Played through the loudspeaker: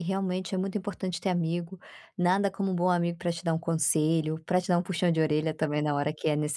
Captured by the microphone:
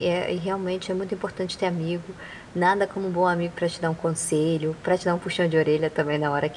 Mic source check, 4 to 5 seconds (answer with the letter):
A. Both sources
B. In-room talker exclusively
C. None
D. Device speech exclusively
D